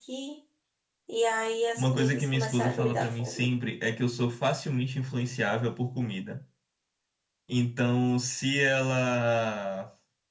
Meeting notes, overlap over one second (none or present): present